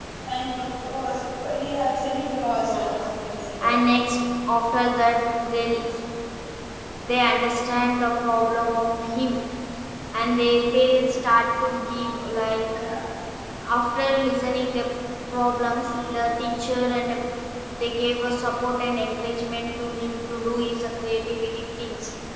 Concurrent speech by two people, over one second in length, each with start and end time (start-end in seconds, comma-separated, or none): none